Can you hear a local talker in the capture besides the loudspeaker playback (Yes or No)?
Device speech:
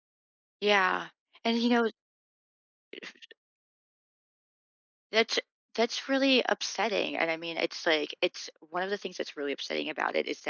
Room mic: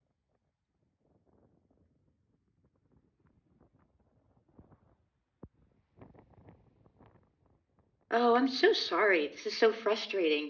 Yes